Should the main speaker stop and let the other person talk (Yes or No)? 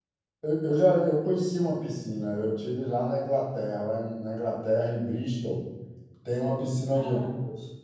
No